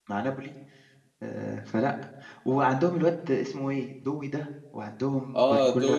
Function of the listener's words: taking over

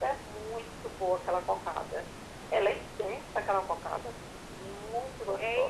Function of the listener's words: taking over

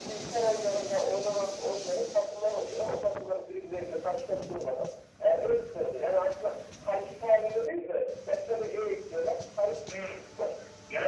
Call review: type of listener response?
taking over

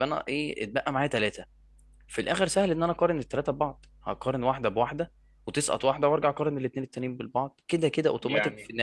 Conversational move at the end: listening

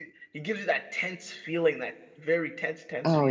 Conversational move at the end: taking over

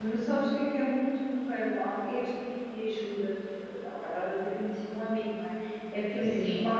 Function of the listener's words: listening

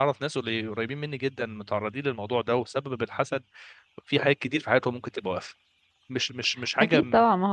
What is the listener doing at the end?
taking over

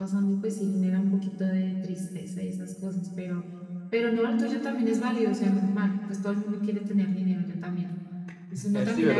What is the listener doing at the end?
taking over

